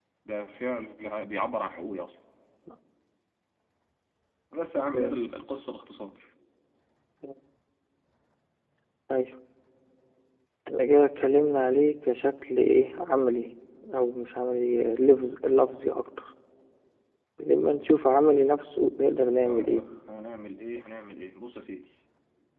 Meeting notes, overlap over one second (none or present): none